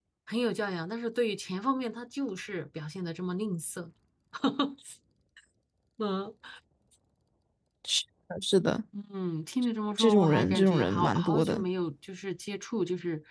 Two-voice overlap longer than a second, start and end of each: 10.0-11.6

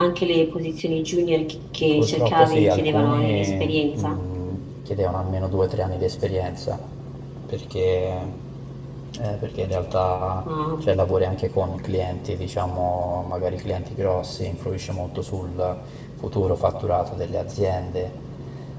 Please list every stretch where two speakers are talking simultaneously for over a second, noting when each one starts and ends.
1.8-4.2

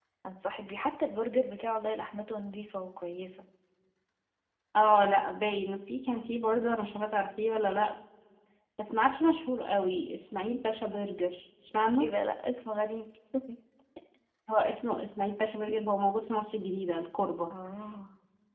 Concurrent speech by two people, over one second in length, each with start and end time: none

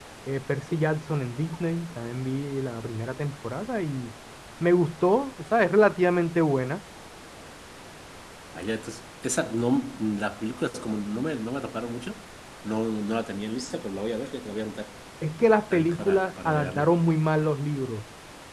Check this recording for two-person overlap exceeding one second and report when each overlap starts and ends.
15.7-16.9

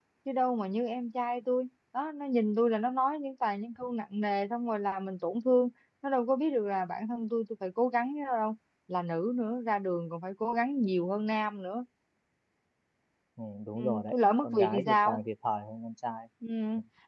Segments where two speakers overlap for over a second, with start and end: 13.8-15.2

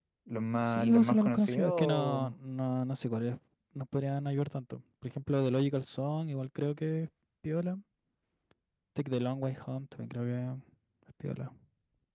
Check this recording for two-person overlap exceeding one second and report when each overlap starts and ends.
0.6-2.3

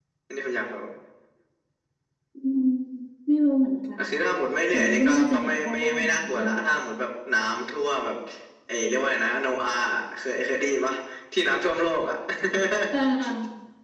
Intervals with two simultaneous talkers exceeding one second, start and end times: 4.7-6.6

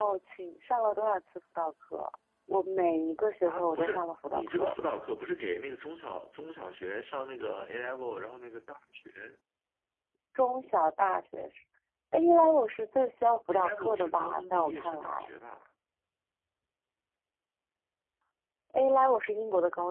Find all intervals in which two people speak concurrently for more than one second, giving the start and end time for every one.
3.5-4.8, 13.5-15.3

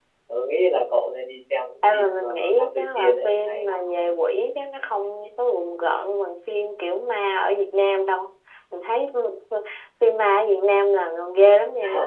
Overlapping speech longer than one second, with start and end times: 1.9-3.8

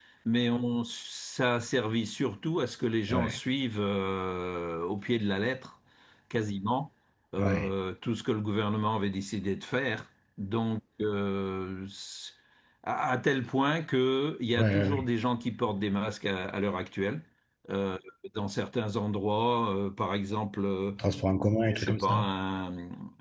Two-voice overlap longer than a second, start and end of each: none

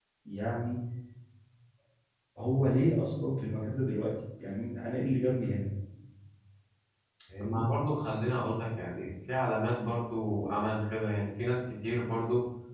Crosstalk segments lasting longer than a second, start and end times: none

